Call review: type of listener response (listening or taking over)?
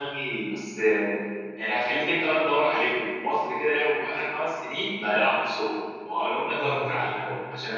listening